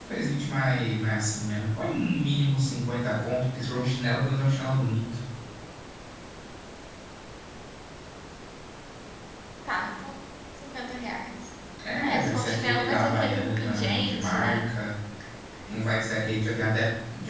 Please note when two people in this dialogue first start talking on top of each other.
12 s

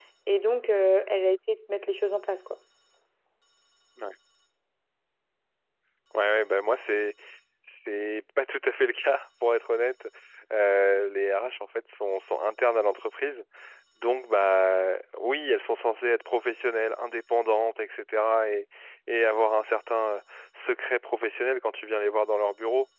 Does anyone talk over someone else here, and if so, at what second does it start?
none

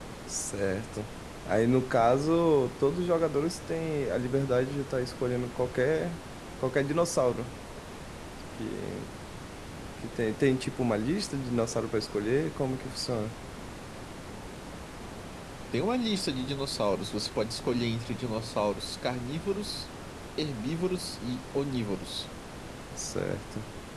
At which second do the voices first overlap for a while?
none

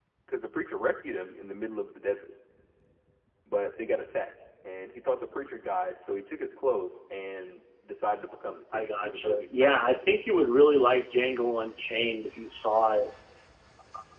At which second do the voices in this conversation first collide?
9 s

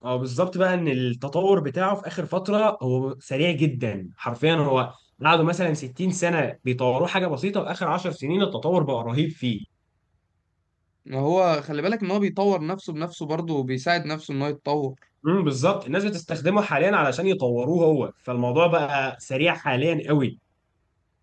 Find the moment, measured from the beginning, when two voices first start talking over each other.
none

